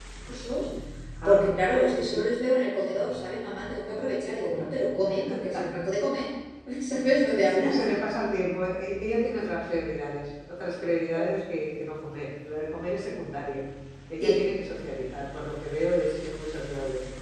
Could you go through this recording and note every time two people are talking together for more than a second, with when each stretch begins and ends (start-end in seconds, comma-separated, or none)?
none